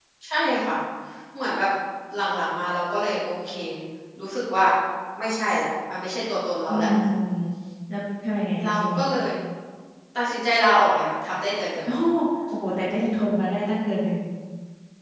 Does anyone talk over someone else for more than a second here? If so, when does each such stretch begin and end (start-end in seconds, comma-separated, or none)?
none